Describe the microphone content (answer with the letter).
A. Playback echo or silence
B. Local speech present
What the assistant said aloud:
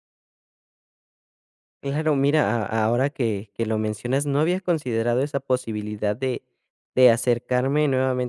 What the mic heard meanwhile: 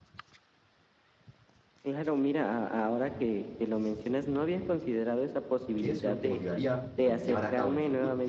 B